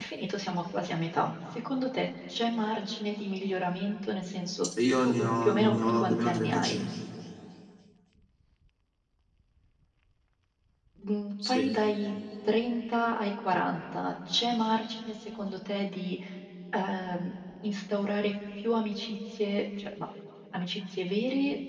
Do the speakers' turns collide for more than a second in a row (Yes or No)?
Yes